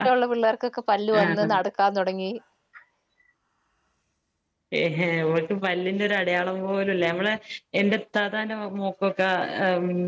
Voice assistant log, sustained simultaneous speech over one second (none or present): none